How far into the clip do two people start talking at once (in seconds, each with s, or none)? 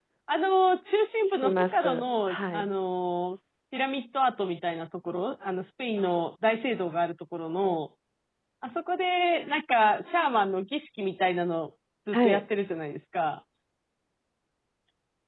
1.2 s